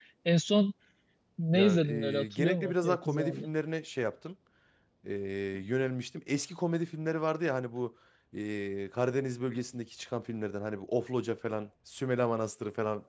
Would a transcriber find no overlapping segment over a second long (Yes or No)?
No